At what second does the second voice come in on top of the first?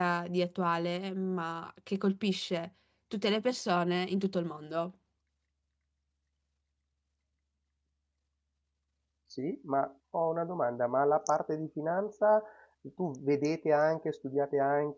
none

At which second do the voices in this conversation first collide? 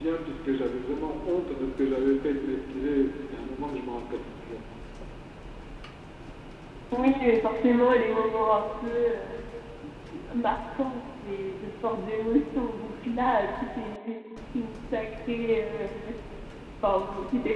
none

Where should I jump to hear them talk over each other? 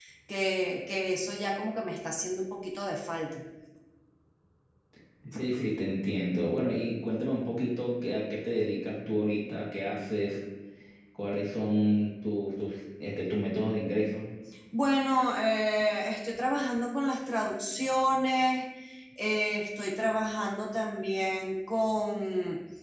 none

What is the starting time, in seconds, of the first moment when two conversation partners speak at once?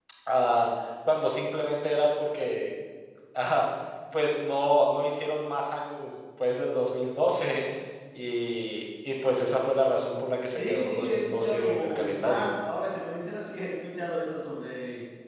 10.6 s

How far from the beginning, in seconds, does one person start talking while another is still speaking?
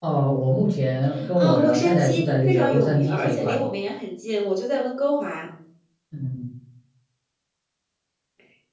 1.4 s

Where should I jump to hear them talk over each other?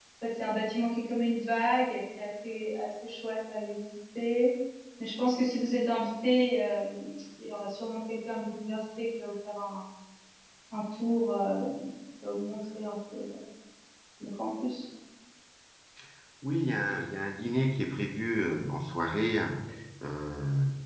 none

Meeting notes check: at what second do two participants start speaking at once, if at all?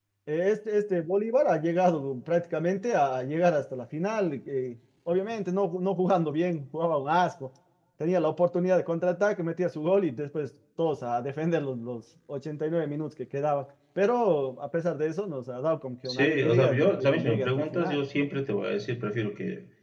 16.1 s

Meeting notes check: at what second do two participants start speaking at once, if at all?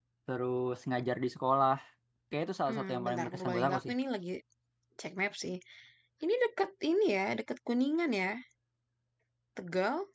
2.7 s

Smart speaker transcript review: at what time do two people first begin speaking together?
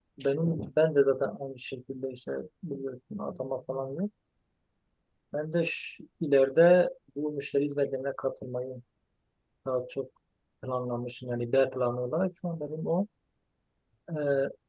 none

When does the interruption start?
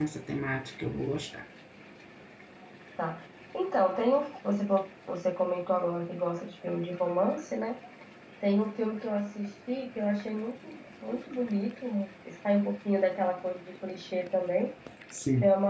none

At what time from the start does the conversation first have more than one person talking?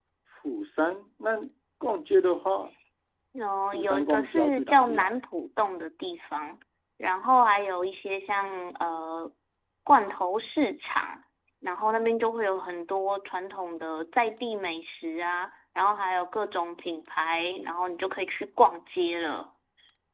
3.7 s

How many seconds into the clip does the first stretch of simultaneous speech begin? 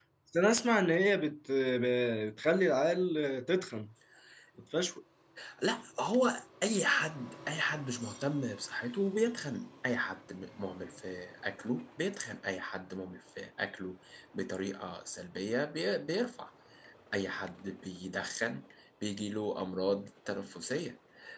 none

